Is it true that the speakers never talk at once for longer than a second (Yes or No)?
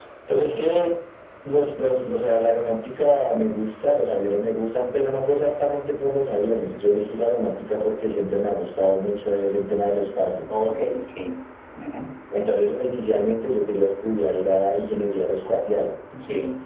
Yes